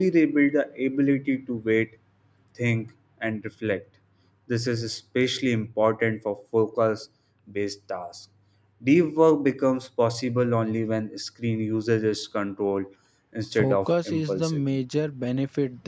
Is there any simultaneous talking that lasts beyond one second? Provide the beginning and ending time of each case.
13.6-14.8

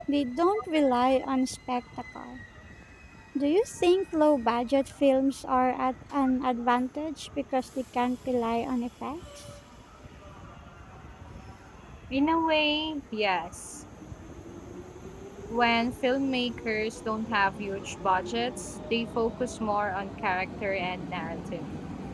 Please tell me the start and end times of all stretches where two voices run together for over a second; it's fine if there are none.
none

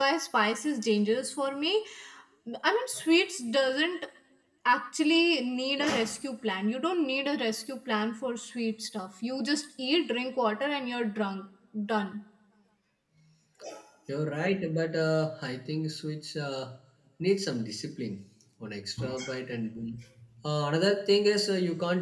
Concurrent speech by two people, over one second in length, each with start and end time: none

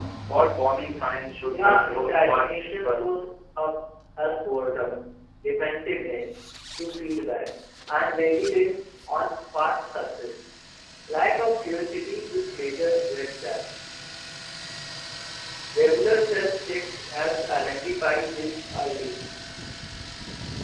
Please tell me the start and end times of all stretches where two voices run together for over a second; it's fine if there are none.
1.5-3.0

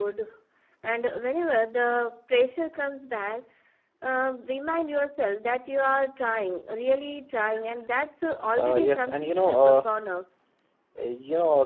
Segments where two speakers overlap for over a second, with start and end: 8.6-9.8

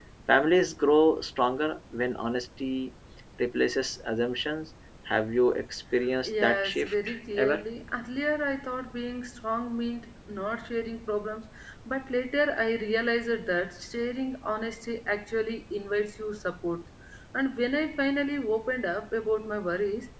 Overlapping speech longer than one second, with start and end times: 6.2-7.6

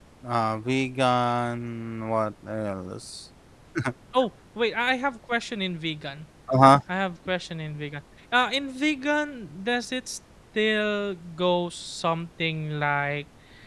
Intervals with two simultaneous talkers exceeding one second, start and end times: none

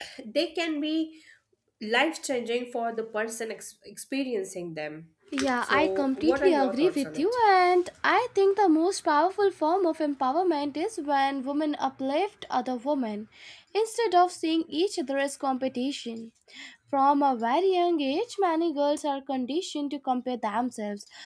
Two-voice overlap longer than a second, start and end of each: 5.6-7.4

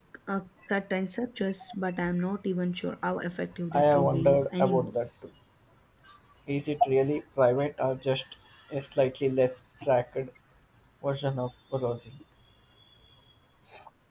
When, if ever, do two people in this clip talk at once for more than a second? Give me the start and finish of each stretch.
3.7-5.0

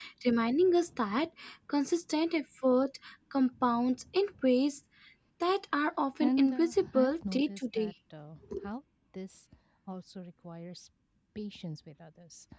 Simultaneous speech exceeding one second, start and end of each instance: 6.2-7.9

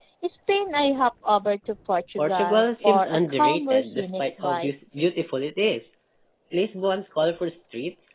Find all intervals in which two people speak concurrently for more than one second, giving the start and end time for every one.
2.2-4.7

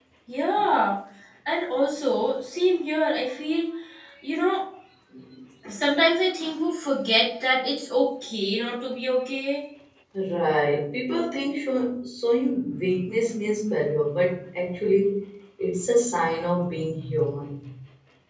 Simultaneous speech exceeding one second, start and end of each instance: none

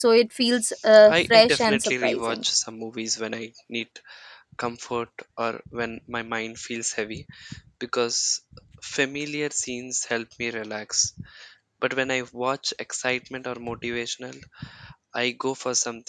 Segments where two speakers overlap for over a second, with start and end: 1.1-2.4

